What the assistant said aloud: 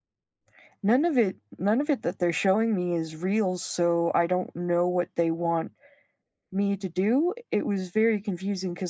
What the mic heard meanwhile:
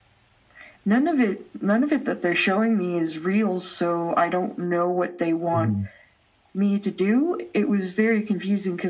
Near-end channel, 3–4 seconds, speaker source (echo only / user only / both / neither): echo only